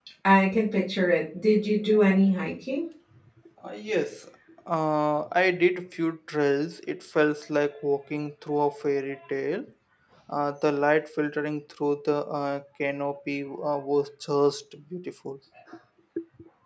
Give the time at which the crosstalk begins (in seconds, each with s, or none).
none